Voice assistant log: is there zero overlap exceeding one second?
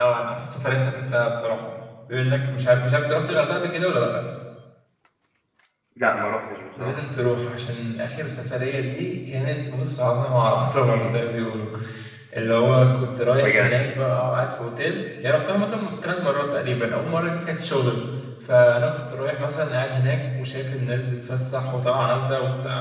Yes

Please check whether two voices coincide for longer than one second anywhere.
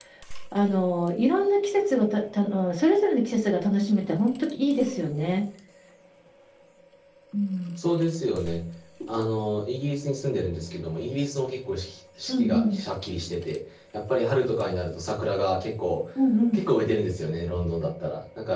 No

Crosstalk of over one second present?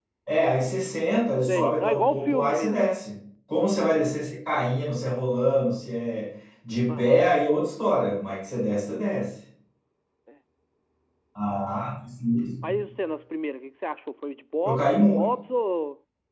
Yes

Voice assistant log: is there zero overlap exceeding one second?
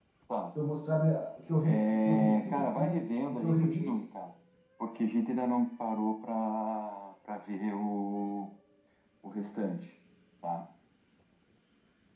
No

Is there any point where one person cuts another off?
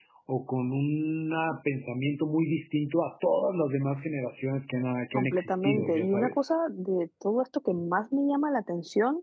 Yes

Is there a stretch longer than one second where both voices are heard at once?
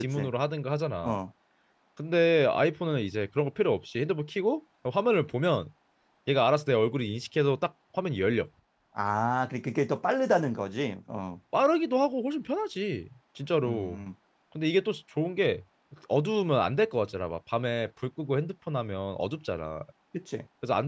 No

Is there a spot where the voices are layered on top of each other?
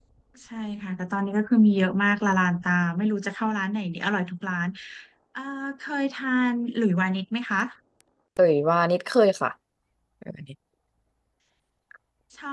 No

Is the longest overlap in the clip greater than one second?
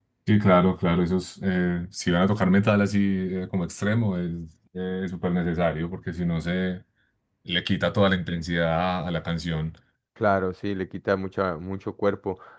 No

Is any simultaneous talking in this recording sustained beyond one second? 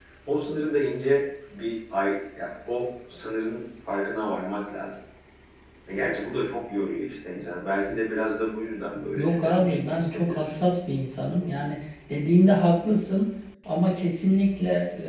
Yes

